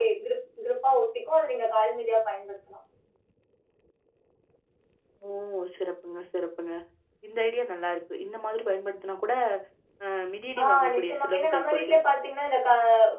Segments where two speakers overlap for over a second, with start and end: 10.6-12.0

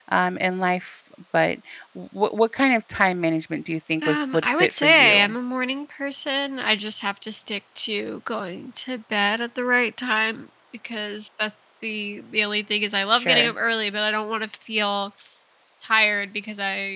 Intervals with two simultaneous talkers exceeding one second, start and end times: 4.0-5.3

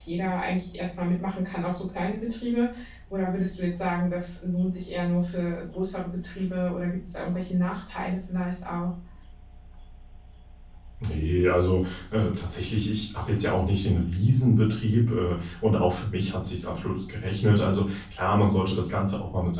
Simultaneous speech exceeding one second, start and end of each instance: none

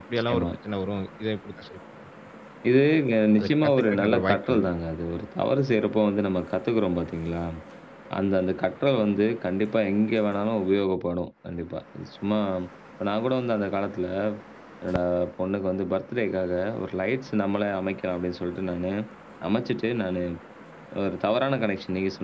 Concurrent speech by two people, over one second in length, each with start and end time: 3.4-4.6

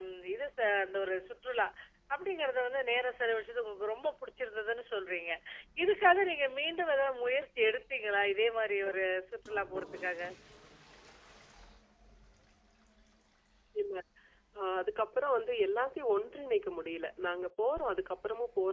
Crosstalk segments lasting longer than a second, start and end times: none

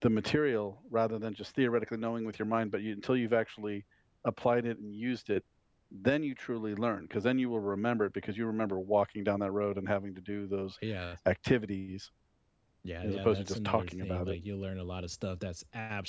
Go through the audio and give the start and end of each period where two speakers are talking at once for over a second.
13.0-14.4

